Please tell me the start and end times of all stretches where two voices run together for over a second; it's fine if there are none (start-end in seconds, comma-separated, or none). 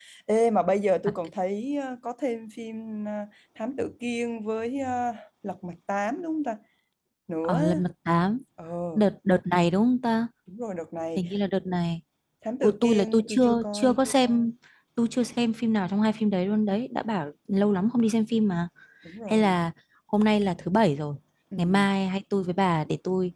12.6-14.0